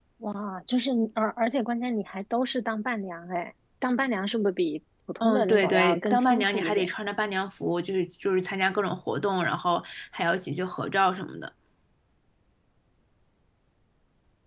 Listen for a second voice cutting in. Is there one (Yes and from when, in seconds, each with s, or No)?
Yes, from 5.2 s